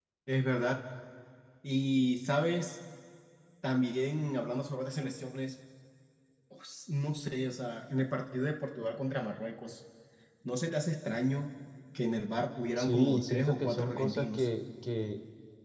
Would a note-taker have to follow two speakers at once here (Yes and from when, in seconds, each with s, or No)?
Yes, from 12.8 s